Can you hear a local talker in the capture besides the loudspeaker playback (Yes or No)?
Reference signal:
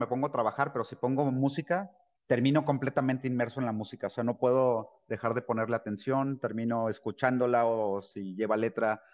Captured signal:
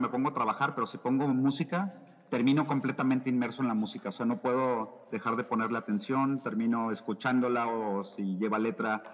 No